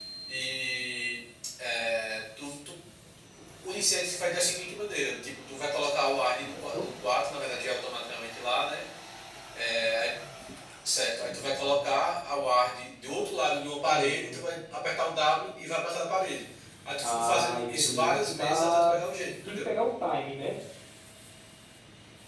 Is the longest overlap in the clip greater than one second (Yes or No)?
Yes